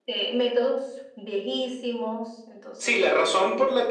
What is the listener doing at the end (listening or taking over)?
taking over